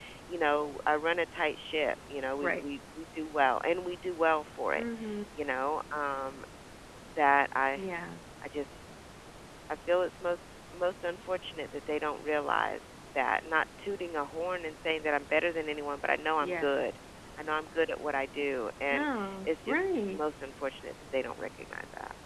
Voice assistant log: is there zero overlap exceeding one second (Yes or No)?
No